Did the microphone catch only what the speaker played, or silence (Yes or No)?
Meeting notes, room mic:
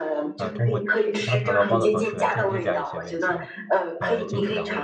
No